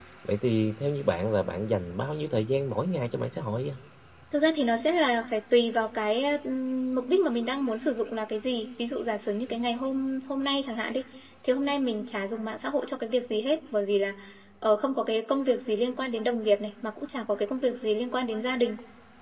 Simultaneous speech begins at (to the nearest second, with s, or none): none